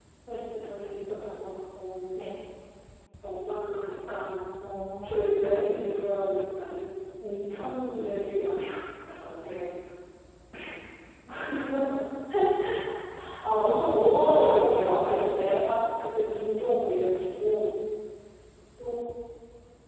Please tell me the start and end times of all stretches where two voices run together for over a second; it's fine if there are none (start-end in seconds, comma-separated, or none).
14.2-15.7